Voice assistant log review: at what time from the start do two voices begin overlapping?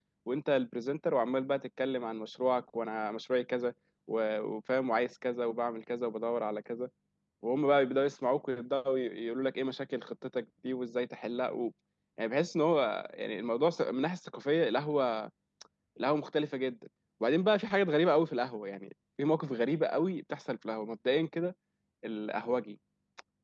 none

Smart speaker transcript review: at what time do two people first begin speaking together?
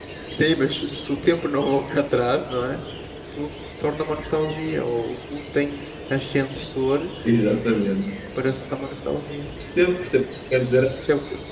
none

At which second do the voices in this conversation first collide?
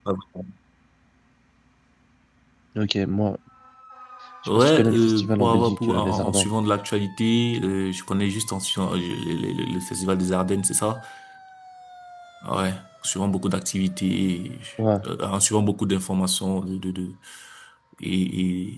4.6 s

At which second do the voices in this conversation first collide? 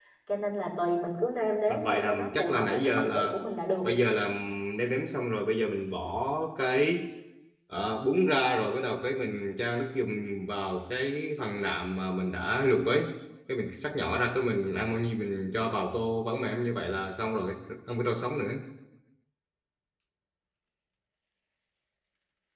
1.7 s

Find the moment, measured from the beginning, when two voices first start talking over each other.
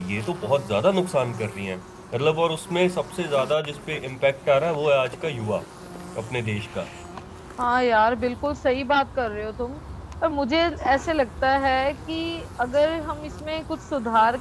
none

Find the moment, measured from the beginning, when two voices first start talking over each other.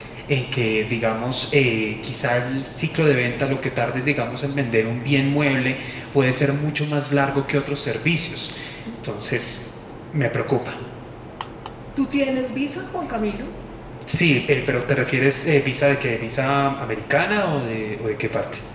none

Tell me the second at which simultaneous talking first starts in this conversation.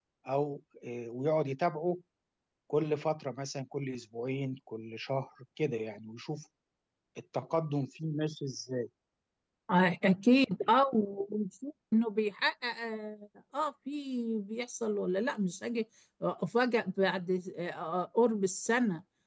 none

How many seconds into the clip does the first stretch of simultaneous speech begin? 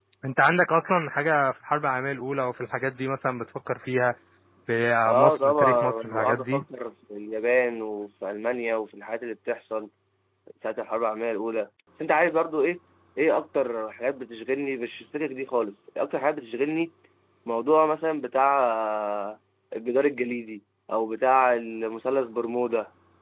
5.0 s

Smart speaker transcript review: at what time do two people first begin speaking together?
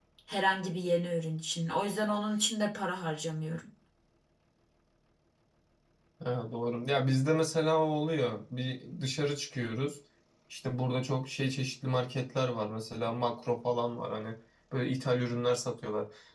none

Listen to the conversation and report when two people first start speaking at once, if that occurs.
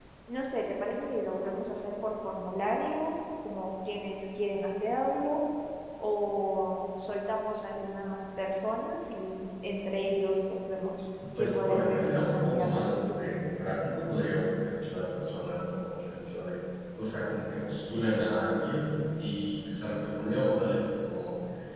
11.2 s

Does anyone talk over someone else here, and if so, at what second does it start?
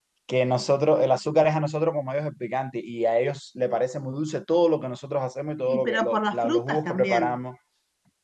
5.7 s

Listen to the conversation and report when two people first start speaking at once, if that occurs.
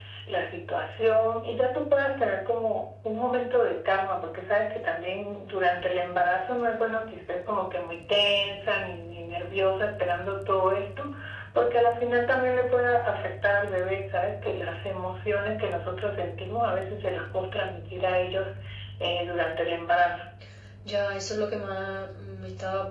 none

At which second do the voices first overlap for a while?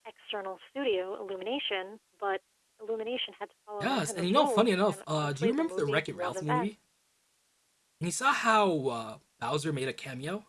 3.8 s

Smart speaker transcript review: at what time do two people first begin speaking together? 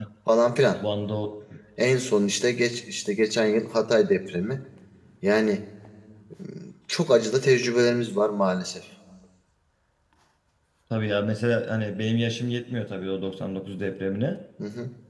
none

